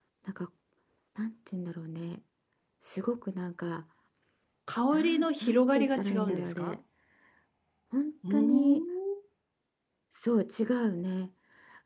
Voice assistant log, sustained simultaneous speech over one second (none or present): present